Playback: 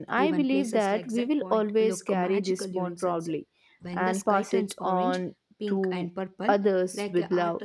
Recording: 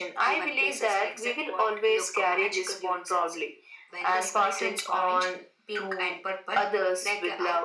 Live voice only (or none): none